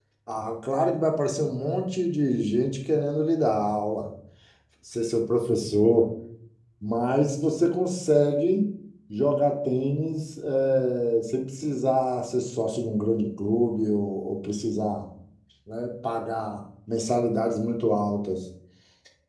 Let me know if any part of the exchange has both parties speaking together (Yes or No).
No